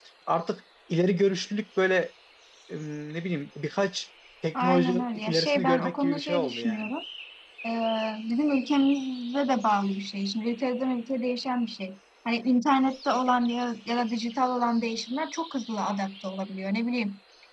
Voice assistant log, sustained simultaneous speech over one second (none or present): present